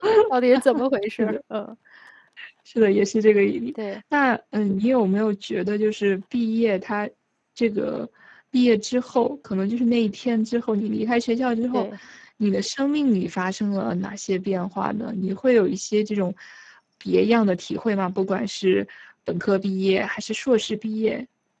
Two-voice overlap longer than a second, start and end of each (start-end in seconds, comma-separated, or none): none